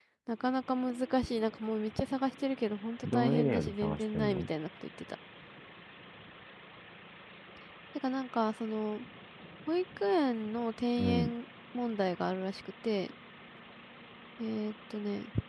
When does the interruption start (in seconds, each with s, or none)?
3.0 s